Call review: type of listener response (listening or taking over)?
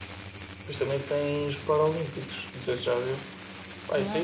listening